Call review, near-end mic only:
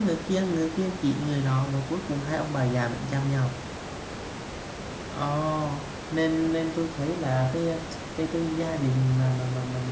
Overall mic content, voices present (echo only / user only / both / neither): user only